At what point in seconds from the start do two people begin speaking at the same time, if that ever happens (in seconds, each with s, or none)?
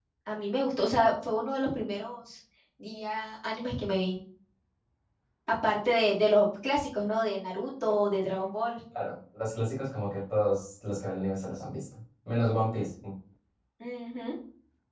none